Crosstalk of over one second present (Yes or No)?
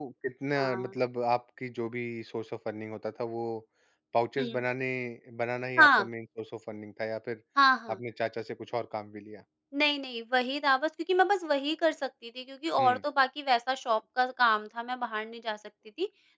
No